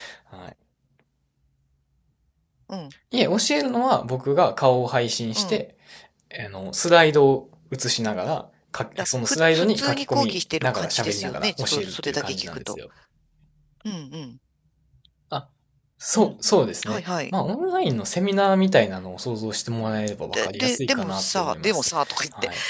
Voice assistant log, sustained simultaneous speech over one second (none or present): present